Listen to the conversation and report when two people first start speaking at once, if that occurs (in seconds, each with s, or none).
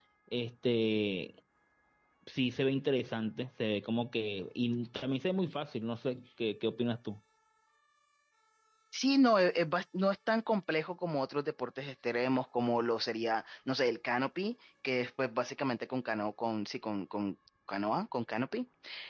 none